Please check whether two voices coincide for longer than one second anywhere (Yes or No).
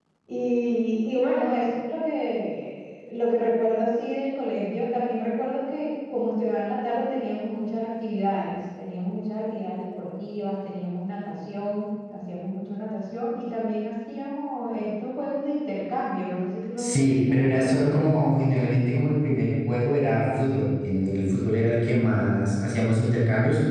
Yes